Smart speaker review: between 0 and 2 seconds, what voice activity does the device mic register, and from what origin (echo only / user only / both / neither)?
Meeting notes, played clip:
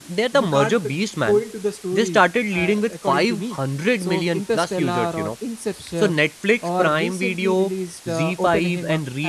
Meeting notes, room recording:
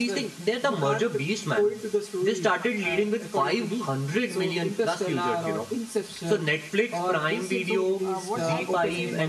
echo only